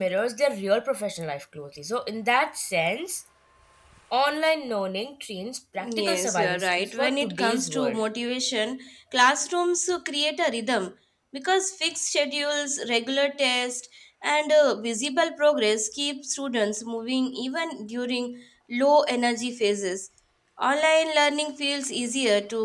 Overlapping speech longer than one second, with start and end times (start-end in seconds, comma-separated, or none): 5.8-8.0